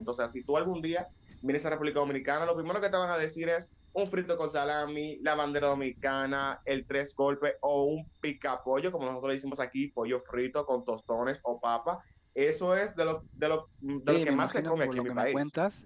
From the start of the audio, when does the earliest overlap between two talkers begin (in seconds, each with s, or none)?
14.1 s